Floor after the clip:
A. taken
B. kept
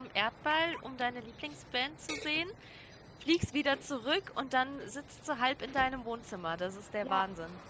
A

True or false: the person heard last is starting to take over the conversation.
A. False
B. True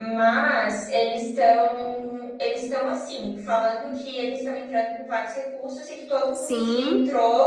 A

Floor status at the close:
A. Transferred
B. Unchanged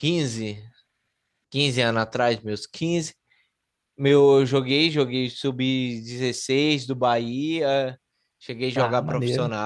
B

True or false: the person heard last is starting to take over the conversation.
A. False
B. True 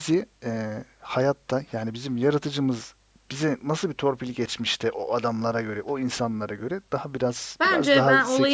B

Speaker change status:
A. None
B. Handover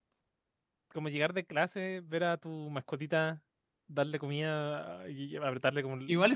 B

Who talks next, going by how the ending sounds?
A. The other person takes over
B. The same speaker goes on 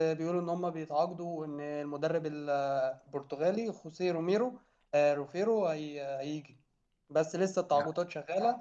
B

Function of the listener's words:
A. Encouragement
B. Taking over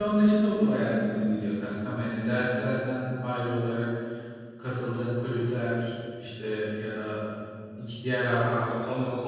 B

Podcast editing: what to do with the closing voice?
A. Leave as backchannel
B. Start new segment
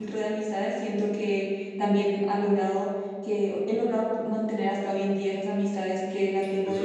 B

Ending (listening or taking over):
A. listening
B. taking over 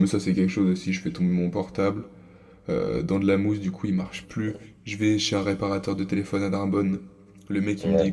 A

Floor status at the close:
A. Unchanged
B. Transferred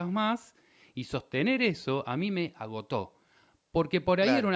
A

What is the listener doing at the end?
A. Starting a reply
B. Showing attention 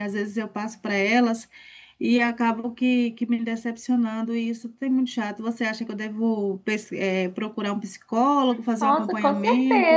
A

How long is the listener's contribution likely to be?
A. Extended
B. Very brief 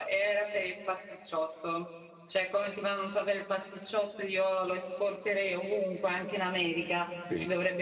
B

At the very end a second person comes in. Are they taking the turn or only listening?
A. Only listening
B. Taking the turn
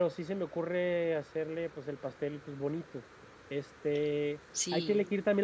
A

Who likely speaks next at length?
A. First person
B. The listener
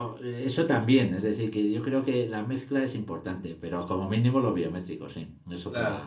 B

